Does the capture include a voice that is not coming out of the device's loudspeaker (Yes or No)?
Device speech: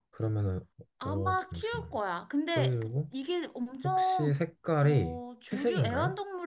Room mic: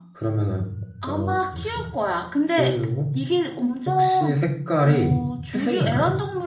No